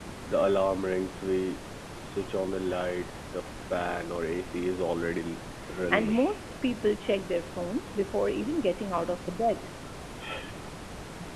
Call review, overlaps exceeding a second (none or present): none